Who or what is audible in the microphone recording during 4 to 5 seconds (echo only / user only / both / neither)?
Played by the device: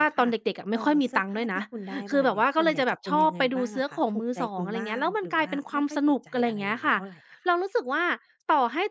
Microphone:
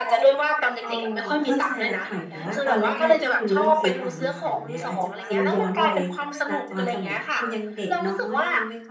both